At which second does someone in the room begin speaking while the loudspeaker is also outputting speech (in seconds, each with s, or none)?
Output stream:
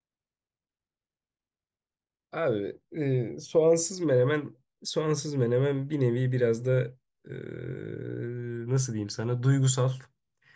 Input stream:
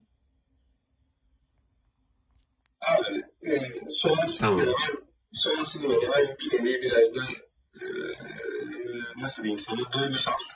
4.4 s